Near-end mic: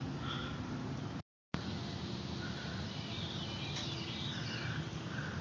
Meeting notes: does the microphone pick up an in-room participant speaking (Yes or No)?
No